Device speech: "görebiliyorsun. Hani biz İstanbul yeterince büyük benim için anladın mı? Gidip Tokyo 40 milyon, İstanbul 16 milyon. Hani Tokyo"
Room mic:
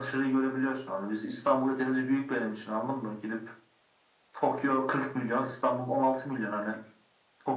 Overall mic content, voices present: echo only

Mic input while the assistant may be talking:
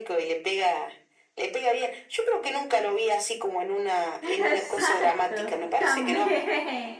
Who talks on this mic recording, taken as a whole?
both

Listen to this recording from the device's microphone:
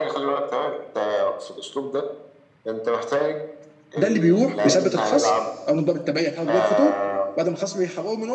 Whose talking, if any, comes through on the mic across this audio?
both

